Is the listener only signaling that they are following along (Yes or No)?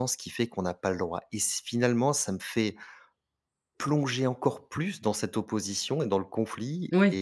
Yes